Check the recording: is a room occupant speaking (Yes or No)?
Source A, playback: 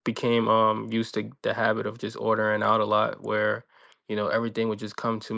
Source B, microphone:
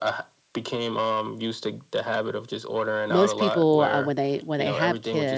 Yes